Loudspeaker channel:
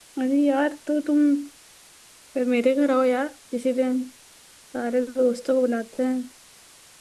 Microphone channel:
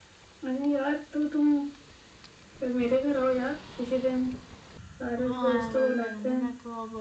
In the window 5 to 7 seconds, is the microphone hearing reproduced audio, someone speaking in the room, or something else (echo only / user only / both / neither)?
both